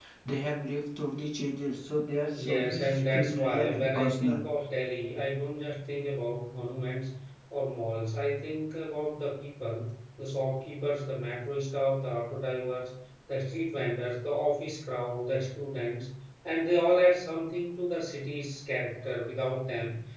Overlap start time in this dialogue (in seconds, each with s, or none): 2.3 s